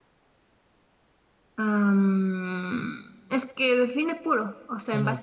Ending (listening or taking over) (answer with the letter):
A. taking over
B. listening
A